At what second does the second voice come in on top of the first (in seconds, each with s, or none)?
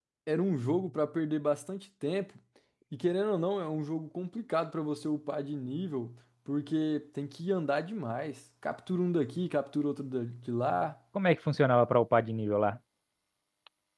none